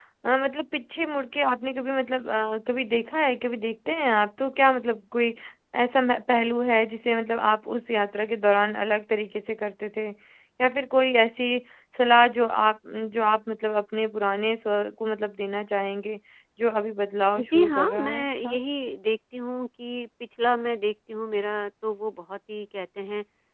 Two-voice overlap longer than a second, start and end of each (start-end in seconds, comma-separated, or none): 17.4-18.6